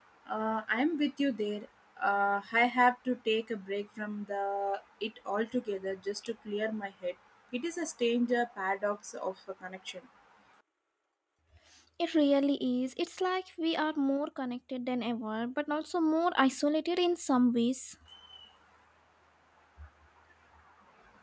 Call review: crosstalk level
none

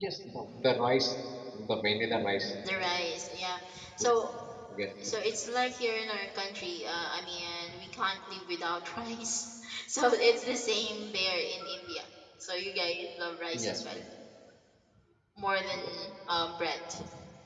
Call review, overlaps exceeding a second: none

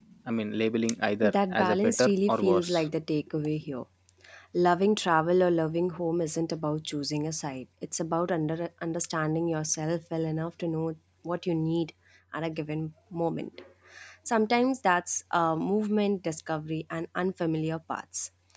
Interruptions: present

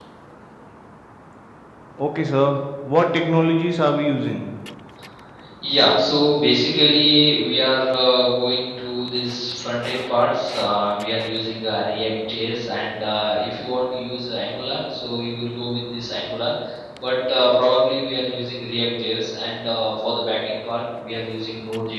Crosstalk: none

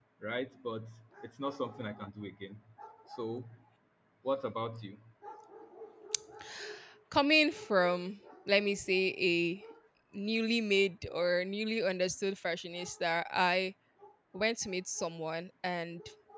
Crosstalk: none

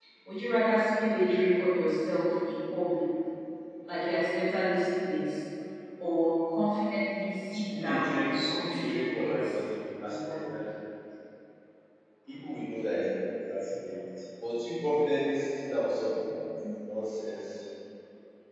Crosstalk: present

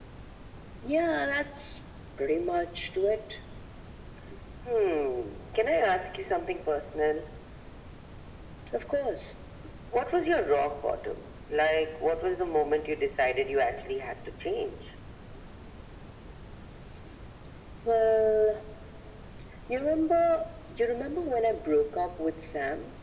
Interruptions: none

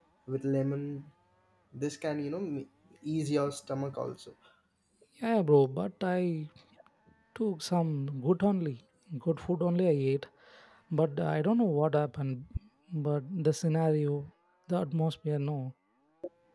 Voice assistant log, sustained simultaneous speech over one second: none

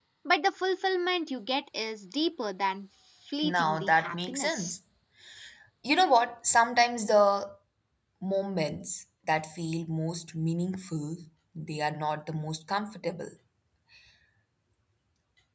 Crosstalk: present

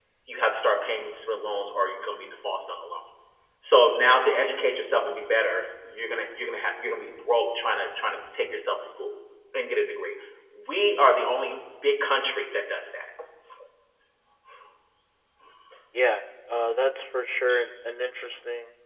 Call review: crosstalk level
none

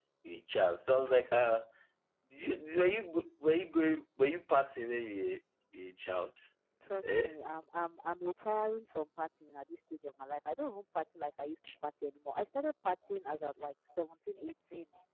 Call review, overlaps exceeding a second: none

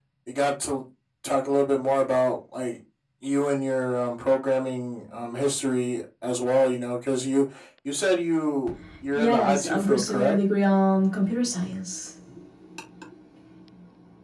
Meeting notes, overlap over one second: present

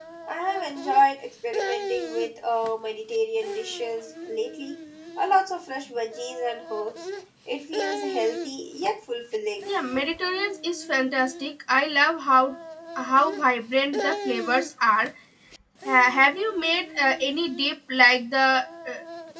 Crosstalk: none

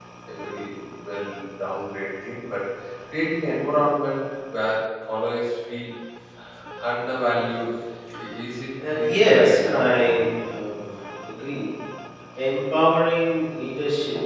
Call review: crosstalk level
present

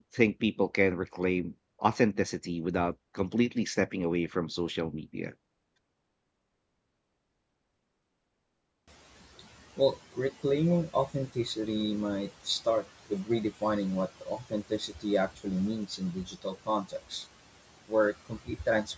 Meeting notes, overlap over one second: none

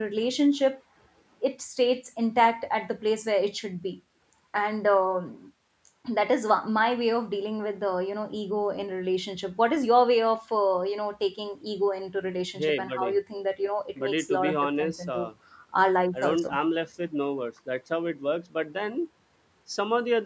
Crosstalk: present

